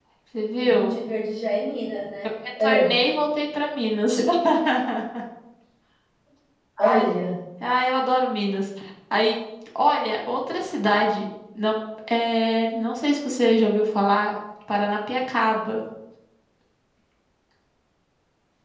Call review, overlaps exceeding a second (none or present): none